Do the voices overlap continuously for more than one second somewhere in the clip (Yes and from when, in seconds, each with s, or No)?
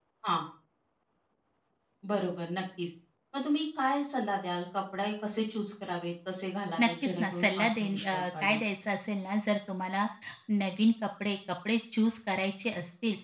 Yes, from 6.8 s